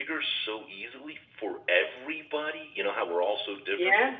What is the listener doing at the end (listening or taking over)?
listening